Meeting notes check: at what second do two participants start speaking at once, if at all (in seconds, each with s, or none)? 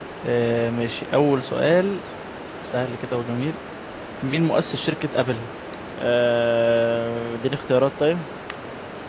none